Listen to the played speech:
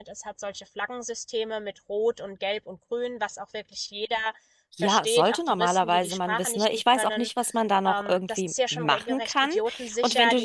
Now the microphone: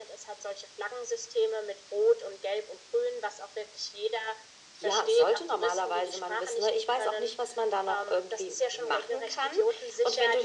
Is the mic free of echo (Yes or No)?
No